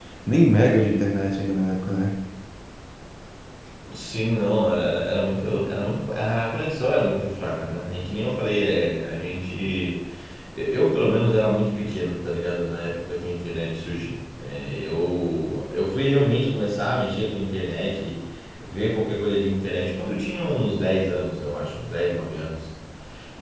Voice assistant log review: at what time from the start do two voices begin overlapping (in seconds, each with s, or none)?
none